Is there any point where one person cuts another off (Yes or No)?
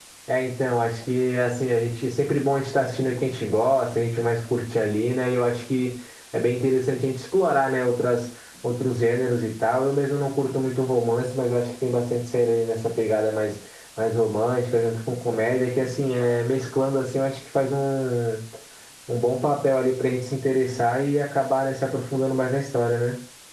No